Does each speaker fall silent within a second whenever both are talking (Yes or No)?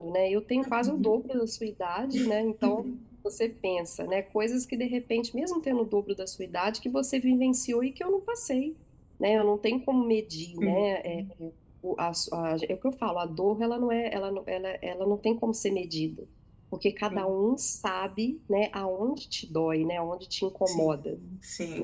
Yes